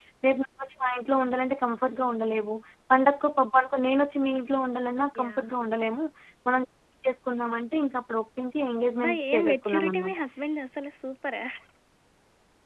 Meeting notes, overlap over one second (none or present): present